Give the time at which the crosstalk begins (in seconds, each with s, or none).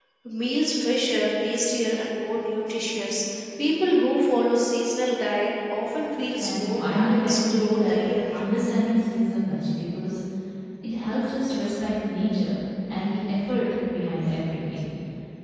6.4 s